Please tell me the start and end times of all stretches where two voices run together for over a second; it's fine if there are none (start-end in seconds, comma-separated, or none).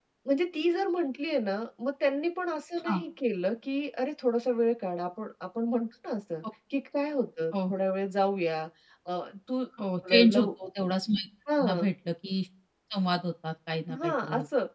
none